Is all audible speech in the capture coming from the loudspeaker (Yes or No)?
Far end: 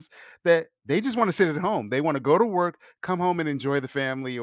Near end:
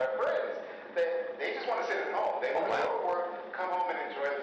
No